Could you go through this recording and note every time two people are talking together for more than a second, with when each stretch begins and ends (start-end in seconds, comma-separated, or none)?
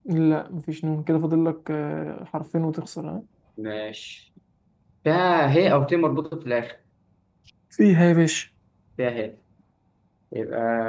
none